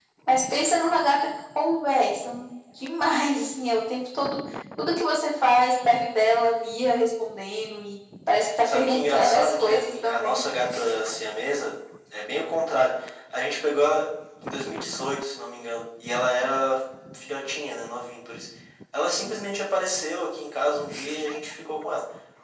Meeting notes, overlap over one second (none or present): present